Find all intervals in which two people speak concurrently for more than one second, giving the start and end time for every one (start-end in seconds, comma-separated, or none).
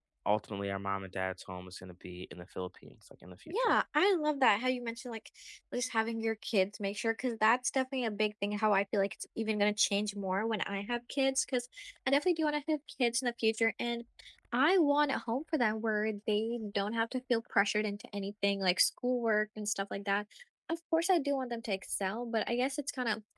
none